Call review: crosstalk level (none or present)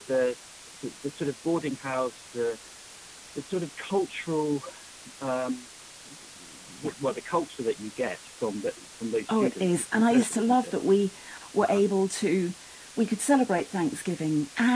present